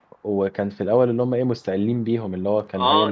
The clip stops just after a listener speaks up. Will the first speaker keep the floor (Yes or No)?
No